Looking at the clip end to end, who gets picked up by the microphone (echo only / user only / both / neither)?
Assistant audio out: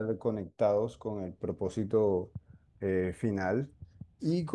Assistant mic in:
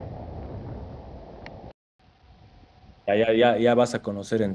user only